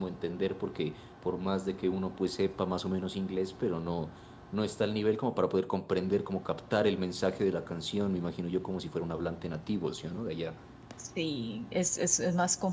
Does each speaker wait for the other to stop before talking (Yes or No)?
Yes